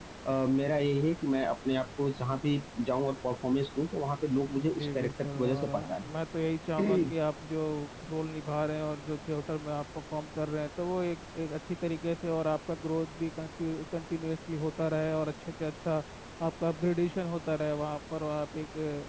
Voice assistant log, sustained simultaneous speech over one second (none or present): present